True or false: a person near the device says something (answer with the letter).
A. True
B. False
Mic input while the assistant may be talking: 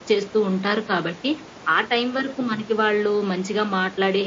B